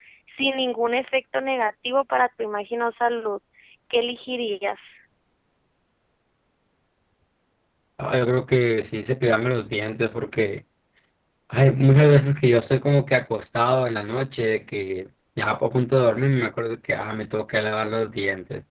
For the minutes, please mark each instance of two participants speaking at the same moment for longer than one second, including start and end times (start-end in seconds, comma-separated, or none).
none